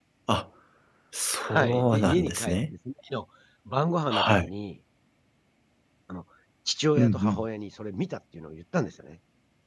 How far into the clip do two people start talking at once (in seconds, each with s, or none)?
1.4 s